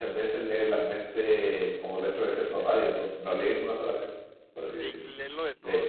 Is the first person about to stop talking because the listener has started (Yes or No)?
Yes